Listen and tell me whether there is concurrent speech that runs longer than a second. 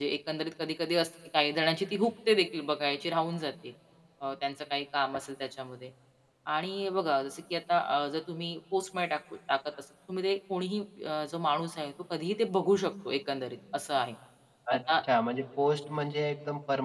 No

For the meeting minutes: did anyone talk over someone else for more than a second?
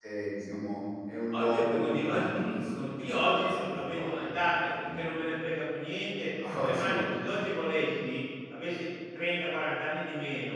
Yes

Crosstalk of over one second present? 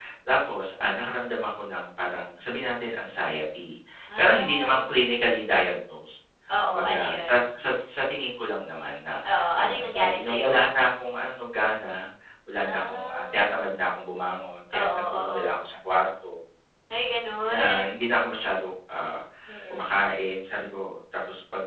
Yes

